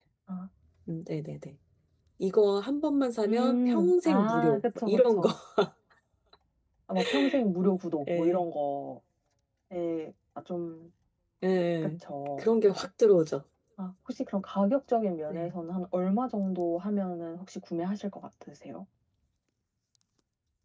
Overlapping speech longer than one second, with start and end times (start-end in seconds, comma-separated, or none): 3.3-5.3